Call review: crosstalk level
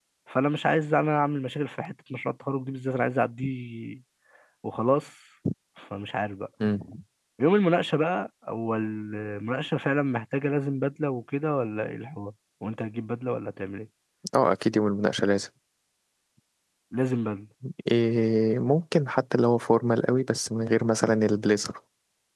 none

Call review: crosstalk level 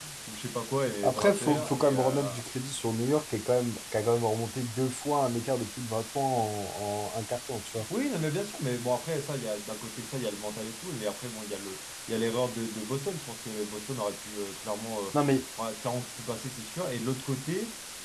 present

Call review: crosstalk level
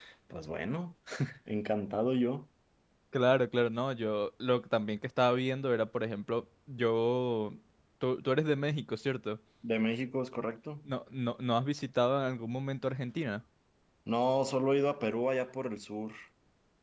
none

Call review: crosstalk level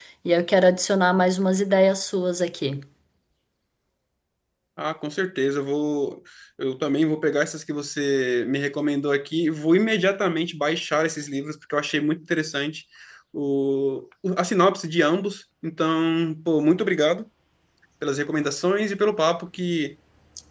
none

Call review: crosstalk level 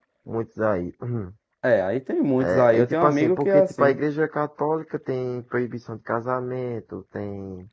present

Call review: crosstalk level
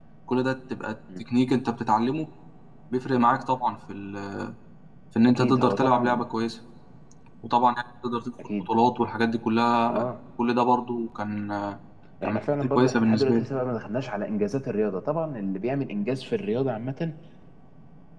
present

